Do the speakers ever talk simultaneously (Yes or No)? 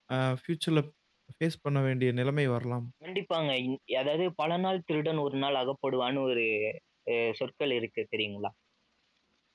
No